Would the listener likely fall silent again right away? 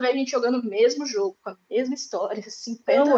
No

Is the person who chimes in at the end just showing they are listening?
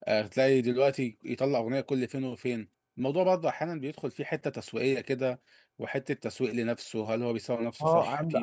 No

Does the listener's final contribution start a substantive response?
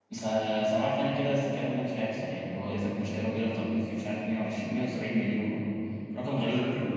Yes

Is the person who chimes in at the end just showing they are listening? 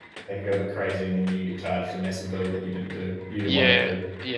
No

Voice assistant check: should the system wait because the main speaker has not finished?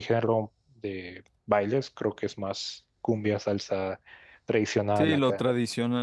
No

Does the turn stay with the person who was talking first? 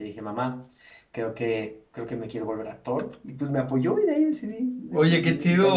No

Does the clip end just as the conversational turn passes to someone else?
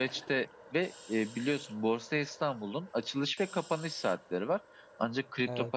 No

